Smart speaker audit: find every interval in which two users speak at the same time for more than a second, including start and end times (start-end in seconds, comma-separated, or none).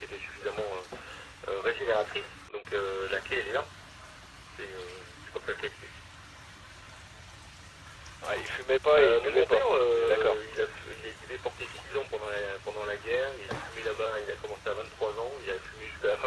9.0-10.4